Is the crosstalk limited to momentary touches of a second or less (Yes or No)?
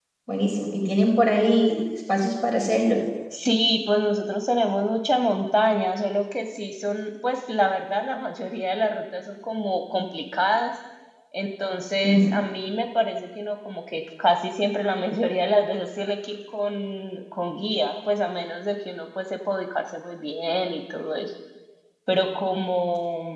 Yes